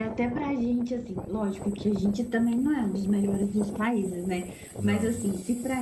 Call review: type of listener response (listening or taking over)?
listening